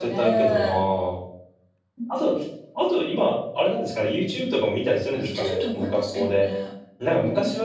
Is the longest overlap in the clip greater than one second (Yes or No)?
Yes